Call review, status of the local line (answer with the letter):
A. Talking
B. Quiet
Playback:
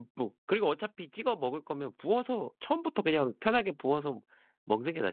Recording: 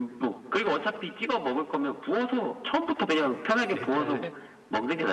A